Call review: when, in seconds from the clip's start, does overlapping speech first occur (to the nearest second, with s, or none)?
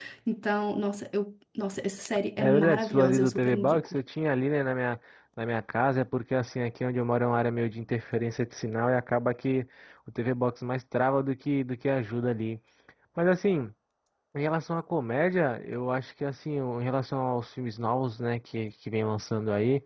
2 s